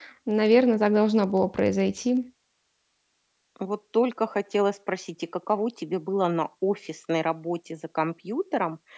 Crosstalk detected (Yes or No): No